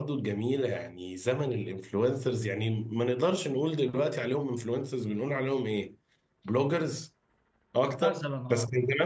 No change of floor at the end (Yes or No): Yes